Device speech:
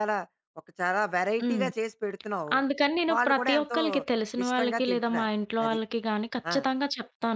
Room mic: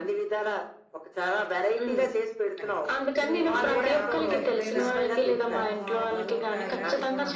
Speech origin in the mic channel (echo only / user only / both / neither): both